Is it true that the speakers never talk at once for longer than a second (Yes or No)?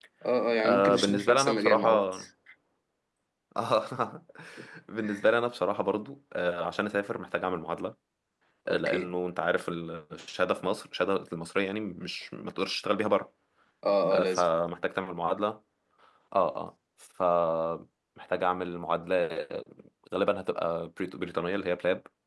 No